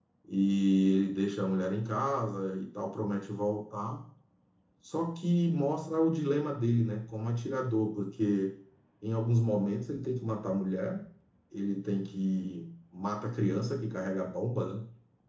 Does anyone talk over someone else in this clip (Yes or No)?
No